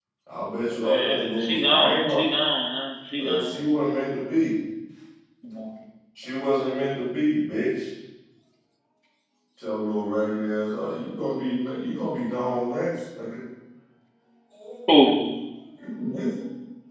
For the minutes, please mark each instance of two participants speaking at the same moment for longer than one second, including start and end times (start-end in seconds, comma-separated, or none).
0.7-2.2